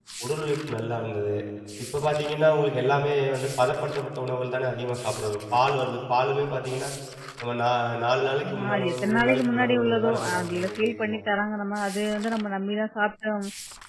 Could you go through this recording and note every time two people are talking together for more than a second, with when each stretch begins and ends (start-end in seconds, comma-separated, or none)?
8.4-11.2